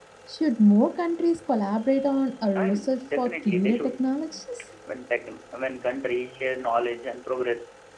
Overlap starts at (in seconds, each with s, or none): 2.5 s